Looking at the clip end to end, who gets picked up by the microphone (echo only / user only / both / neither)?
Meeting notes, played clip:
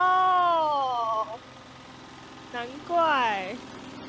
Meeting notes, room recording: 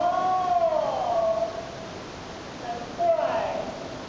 echo only